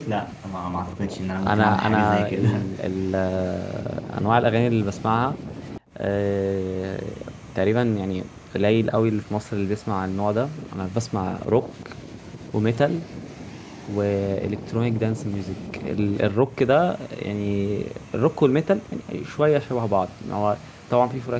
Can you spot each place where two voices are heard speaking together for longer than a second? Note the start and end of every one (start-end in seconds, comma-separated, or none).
1.5-2.7